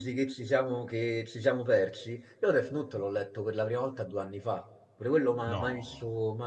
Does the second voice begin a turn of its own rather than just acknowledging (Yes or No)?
No